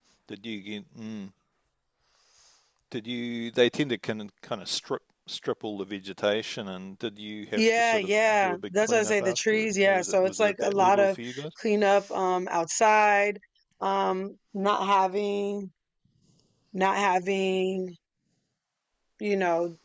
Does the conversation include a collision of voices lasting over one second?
Yes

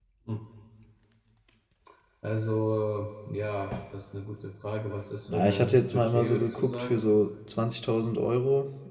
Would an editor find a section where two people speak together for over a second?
Yes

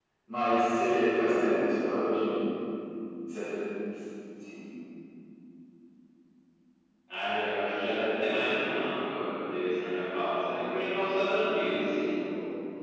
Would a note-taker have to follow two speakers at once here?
No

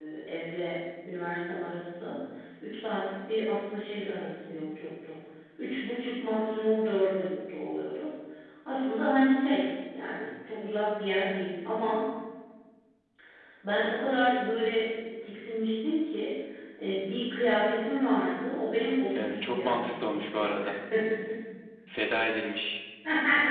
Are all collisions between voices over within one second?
No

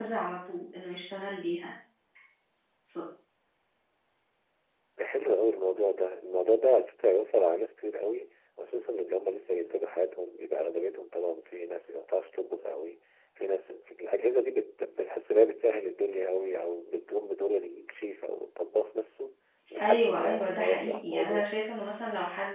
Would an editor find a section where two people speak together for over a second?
Yes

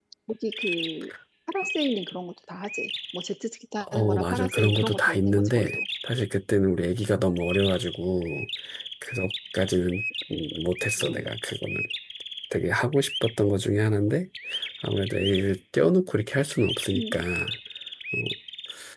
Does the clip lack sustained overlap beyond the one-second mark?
No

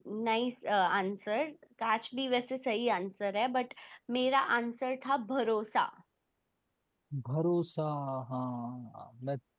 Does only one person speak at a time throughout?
Yes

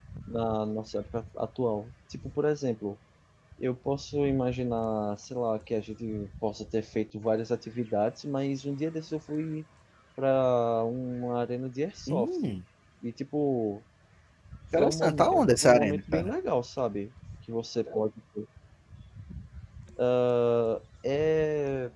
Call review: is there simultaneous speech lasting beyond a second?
Yes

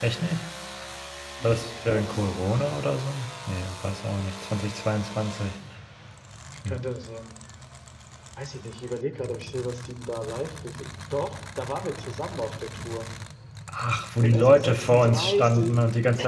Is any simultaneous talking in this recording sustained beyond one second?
Yes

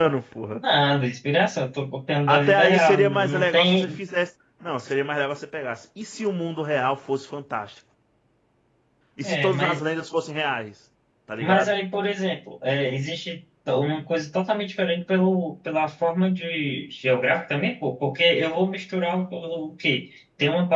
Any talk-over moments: Yes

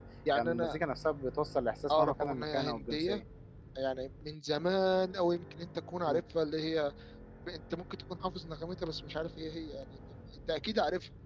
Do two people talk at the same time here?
Yes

